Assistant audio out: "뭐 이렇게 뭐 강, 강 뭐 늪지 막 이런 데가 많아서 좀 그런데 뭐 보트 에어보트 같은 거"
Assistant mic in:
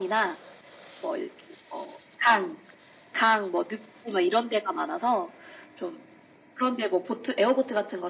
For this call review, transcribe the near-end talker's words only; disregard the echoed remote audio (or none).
none